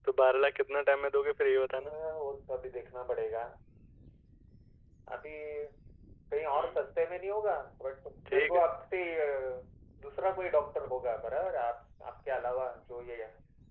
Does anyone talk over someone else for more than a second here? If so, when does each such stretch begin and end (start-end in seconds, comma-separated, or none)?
none